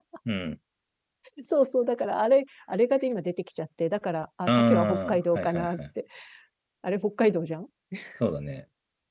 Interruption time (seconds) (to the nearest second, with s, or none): 4 s